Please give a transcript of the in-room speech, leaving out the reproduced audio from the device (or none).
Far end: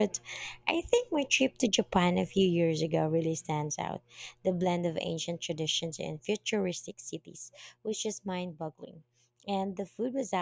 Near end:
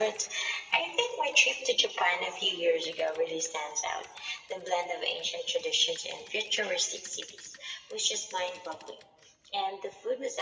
none